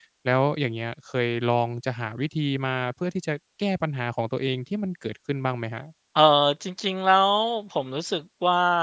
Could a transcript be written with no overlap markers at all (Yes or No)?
Yes